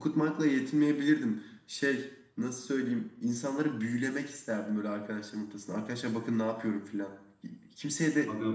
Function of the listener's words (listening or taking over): listening